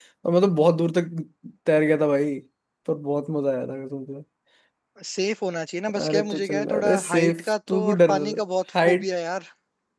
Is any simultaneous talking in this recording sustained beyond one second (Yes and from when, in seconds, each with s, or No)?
Yes, from 6.0 s